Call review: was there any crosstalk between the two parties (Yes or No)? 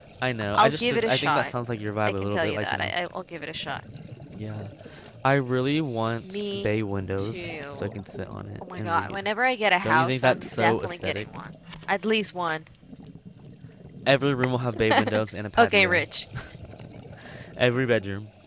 Yes